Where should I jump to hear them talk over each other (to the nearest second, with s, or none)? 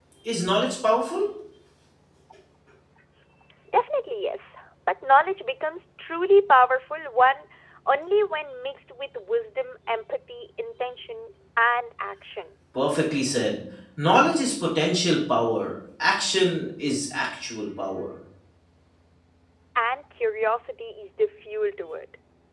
none